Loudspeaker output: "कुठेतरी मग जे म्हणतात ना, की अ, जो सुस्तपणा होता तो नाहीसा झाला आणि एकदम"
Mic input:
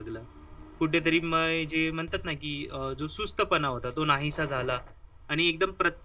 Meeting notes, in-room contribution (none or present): none